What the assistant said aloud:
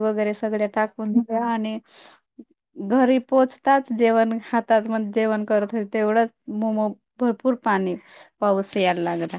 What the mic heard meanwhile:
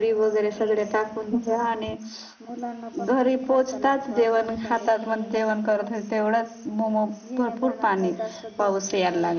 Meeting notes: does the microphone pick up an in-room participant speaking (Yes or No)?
Yes